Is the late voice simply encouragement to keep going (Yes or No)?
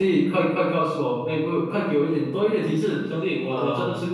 No